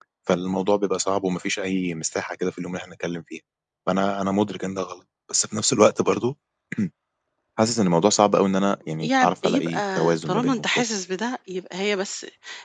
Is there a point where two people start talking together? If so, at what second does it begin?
9.0 s

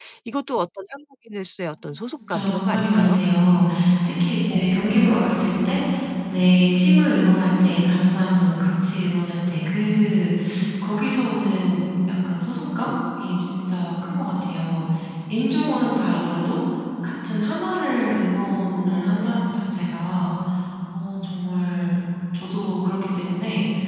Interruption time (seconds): 2.3 s

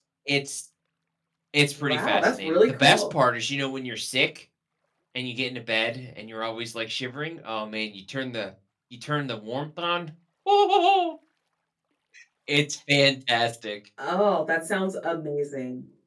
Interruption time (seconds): 1.8 s

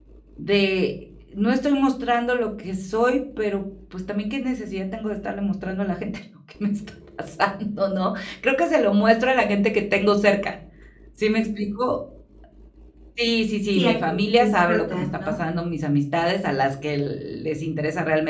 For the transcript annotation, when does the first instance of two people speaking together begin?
13.7 s

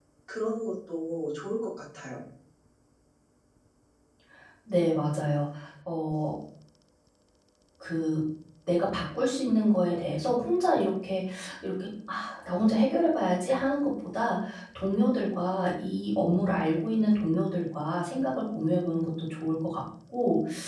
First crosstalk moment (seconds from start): none

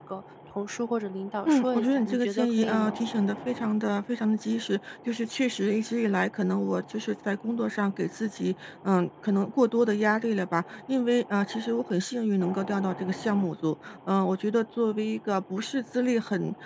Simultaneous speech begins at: 1.4 s

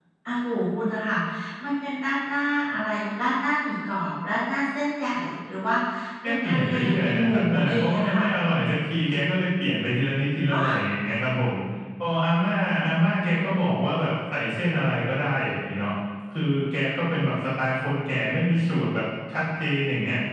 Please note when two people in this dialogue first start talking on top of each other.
6.2 s

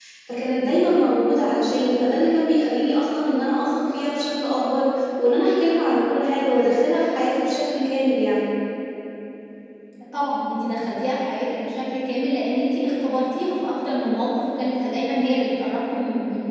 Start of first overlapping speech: none

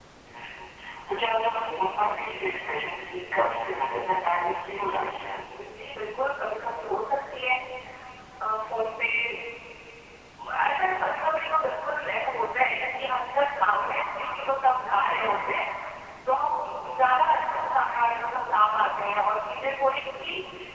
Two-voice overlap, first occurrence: none

